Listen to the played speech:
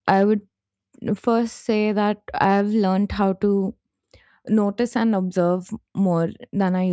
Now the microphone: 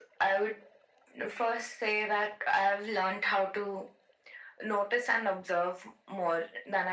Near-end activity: none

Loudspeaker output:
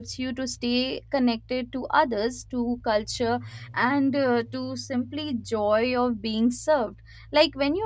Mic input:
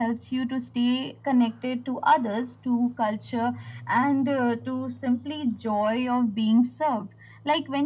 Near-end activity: none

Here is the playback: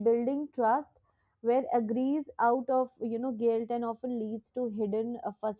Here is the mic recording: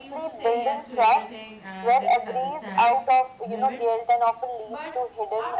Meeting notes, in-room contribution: present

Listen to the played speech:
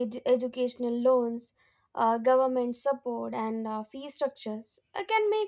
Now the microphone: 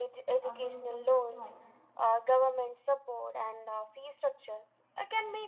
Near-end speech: present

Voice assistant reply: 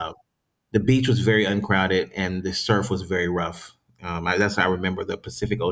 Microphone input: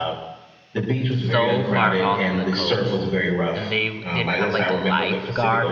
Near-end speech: present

